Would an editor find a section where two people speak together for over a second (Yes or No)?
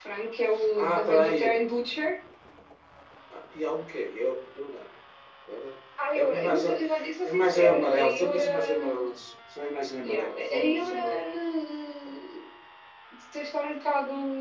Yes